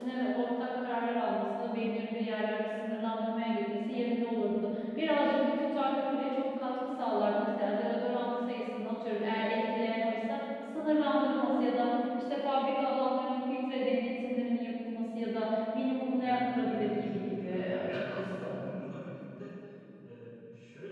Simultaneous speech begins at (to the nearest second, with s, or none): 16 s